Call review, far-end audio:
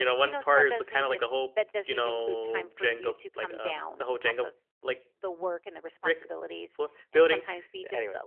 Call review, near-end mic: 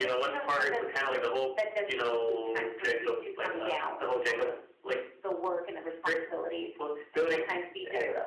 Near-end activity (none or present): none